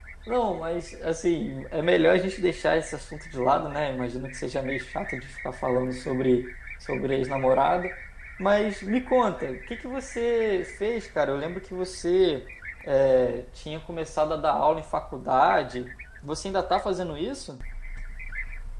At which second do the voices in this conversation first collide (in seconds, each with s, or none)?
none